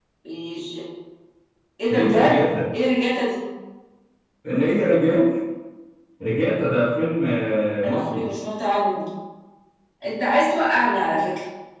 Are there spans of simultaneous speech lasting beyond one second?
No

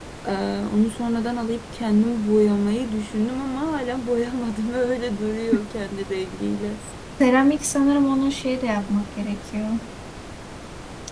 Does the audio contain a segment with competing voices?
No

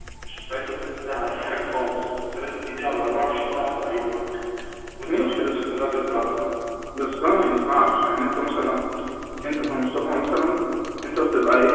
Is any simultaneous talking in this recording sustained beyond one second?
No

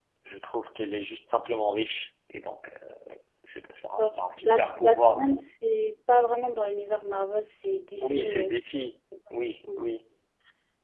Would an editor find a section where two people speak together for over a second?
Yes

